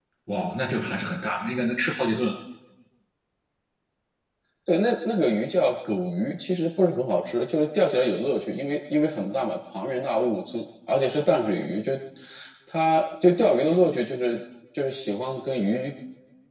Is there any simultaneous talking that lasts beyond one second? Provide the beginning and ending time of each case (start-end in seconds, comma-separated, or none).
none